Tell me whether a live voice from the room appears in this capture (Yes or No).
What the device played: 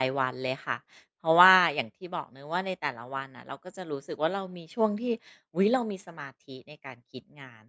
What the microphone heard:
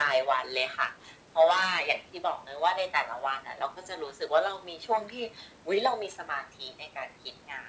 No